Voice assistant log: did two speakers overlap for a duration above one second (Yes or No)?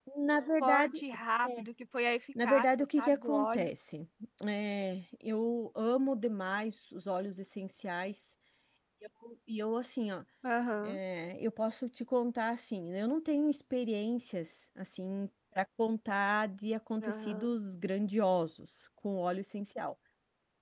Yes